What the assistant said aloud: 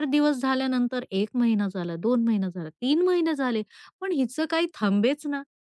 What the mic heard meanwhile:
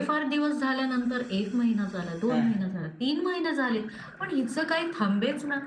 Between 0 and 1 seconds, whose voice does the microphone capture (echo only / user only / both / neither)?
echo only